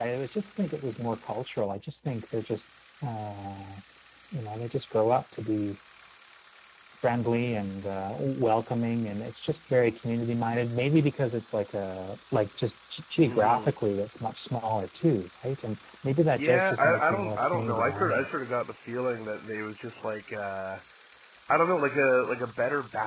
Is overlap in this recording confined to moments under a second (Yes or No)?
No